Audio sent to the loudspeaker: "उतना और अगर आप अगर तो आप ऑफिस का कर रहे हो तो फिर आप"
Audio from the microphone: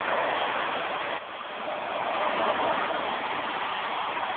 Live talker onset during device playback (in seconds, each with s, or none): none